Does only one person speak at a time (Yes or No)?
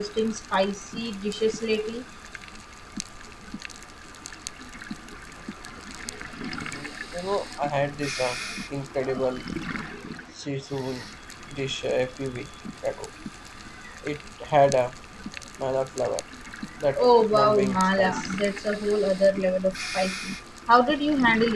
No